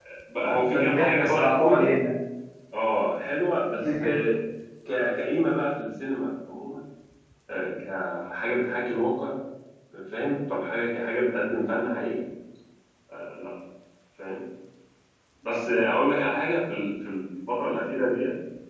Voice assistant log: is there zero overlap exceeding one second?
No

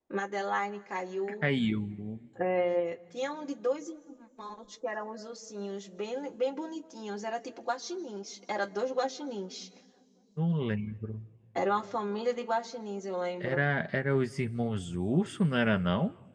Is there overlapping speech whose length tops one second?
No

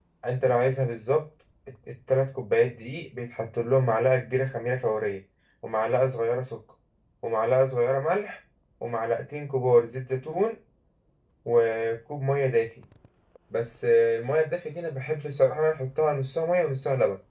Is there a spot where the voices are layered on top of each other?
No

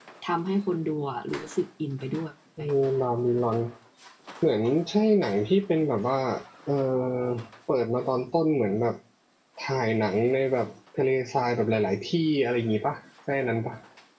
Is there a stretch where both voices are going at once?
No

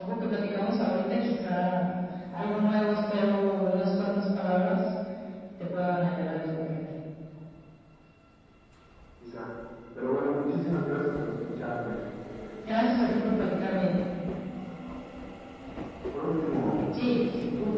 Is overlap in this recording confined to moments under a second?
Yes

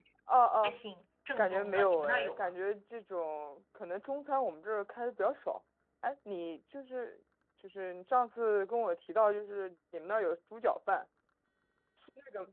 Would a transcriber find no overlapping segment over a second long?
No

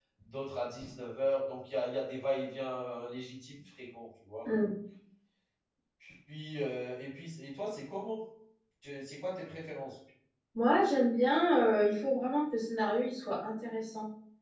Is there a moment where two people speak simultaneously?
No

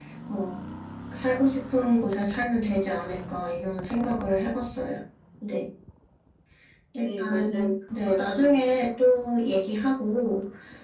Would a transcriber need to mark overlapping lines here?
Yes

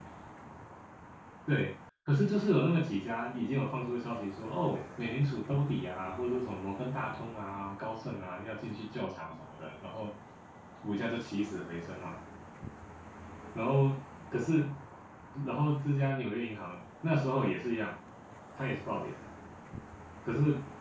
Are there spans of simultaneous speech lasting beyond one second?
No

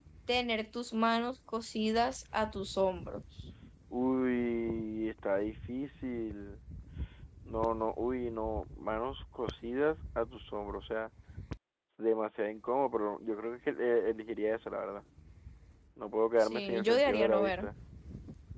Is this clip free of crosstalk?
No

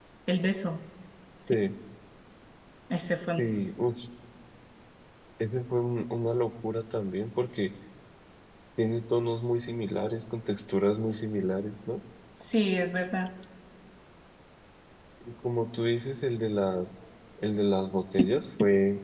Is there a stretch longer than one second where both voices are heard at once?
No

